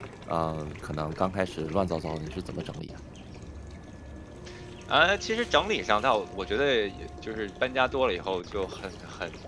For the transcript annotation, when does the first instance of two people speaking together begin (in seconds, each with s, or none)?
none